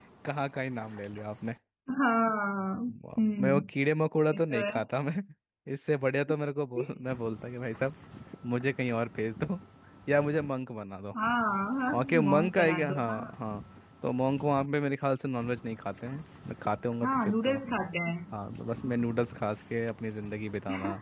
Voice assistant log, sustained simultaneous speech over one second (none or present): present